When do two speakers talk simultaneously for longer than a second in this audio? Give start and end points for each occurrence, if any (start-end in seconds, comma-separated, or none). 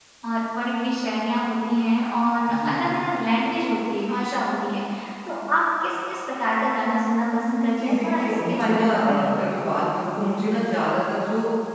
7.8-9.3